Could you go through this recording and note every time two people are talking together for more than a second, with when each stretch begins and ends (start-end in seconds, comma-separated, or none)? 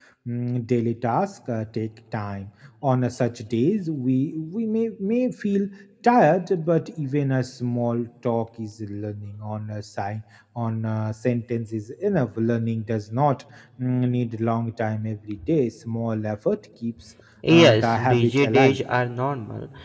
17.5-18.8